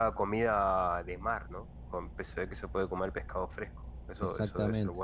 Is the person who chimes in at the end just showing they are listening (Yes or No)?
No